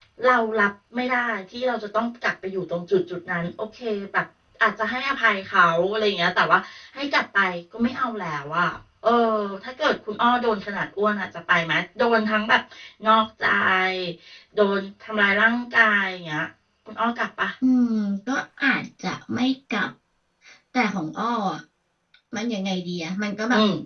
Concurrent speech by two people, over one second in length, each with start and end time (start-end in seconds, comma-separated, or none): none